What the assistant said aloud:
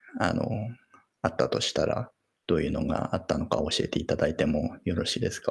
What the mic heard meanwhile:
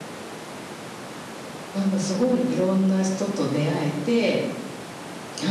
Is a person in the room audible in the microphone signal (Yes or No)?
Yes